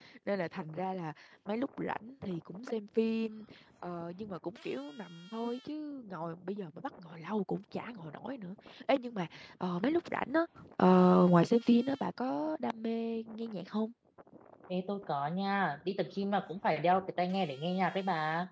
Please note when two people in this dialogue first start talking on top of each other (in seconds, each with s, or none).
none